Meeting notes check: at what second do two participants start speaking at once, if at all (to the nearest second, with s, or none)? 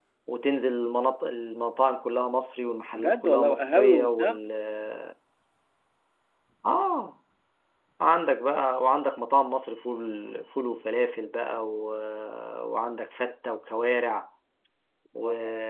3 s